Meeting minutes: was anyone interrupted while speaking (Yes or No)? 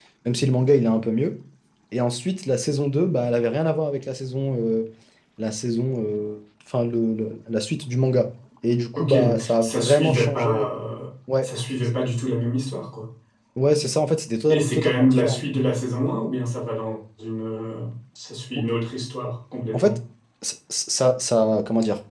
Yes